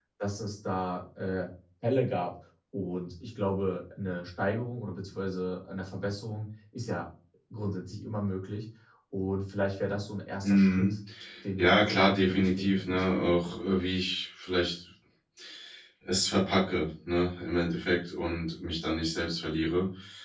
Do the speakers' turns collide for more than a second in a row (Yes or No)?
Yes